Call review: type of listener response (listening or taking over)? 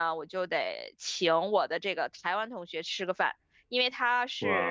listening